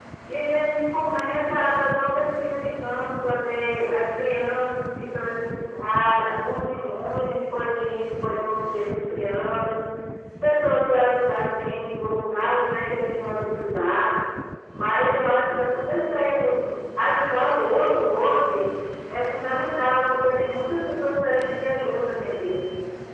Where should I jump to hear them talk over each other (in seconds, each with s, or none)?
none